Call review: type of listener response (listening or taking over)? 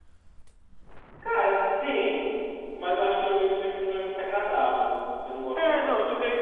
taking over